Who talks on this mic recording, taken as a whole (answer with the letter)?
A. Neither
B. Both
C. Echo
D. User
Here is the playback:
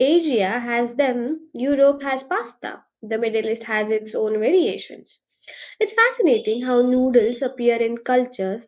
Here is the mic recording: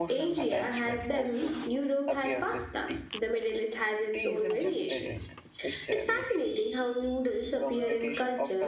B